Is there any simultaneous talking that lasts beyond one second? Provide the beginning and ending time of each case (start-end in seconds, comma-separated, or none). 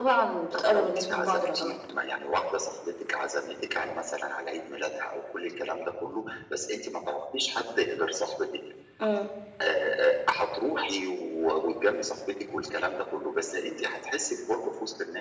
0.5-1.7